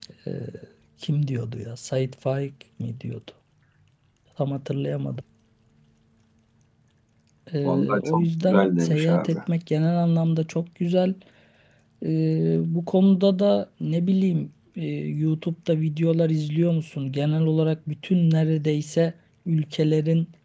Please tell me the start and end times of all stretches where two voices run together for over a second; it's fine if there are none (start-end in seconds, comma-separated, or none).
7.6-9.4